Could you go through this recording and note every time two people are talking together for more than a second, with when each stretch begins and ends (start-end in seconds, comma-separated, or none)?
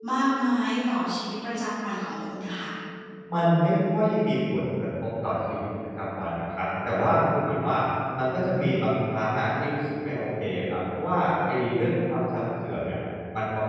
none